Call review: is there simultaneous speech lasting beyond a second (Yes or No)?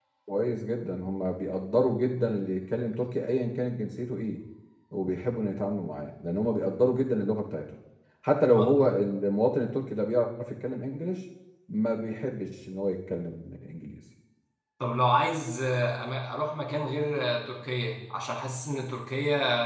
No